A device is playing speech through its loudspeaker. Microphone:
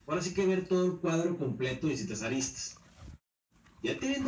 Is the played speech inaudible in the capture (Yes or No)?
No